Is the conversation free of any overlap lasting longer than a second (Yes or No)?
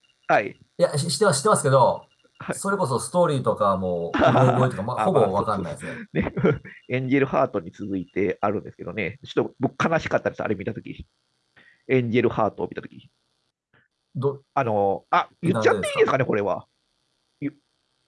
No